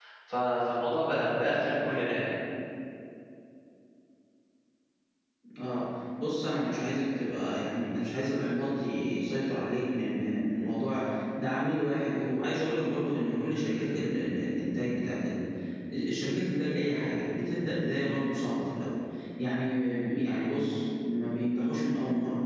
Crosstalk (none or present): none